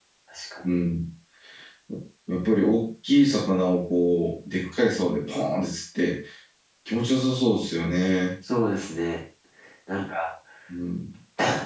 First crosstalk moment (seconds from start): none

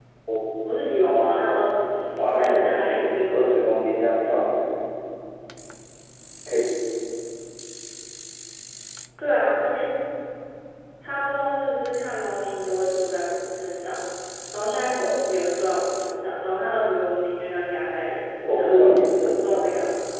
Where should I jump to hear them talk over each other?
2 s

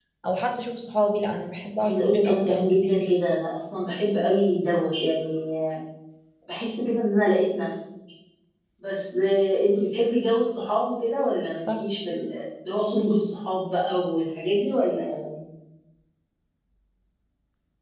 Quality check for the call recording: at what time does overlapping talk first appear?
2 s

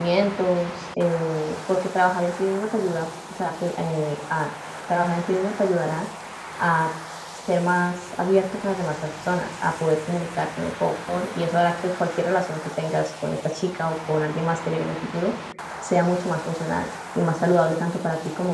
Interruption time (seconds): none

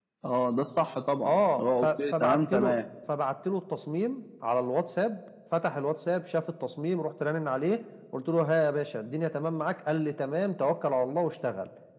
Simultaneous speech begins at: 1 s

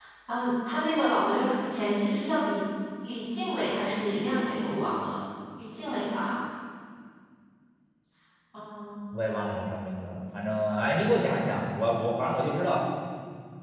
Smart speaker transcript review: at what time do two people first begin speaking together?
none

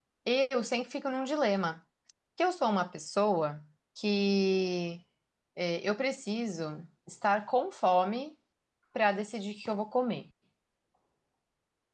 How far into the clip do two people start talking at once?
none

